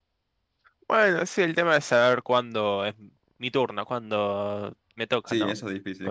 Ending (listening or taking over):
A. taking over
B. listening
A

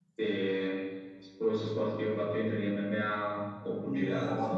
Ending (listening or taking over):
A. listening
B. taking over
B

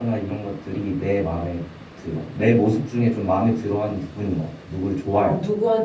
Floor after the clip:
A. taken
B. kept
A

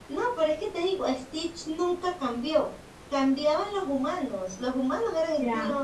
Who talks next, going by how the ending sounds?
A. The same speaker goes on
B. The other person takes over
B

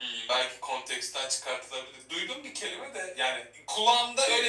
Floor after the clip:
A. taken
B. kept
B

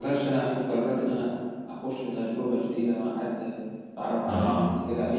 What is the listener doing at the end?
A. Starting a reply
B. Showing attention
B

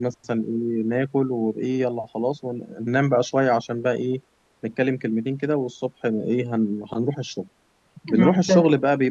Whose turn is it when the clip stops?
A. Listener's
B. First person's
B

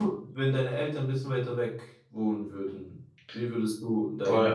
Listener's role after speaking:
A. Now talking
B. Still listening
A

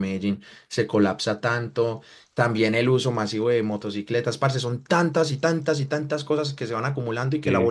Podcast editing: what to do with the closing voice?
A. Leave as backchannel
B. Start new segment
A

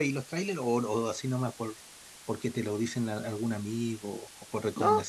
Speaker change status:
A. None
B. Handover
B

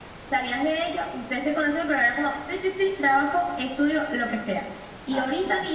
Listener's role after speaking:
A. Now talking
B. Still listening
B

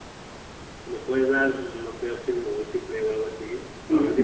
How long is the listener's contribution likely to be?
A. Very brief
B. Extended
B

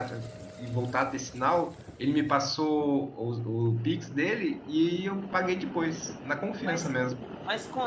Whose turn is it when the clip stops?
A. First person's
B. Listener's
B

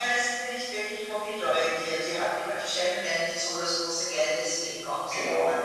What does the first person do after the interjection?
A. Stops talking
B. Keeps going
A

